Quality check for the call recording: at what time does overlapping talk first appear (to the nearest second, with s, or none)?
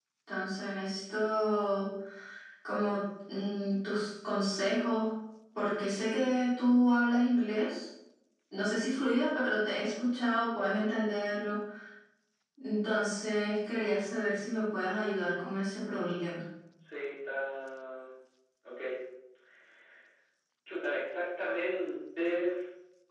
none